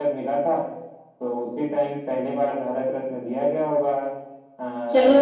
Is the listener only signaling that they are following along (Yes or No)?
No